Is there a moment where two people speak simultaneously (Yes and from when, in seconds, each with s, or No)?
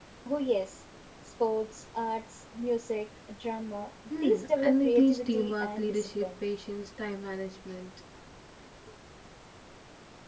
Yes, from 4.1 s